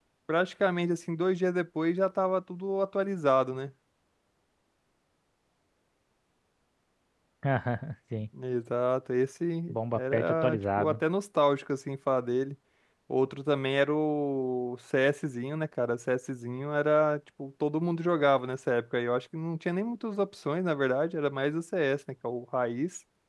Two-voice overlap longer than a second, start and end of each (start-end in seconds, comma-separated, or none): 9.7-11.0